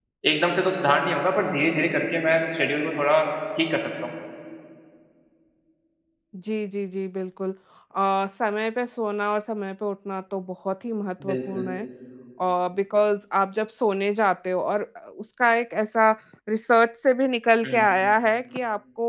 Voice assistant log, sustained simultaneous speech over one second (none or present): none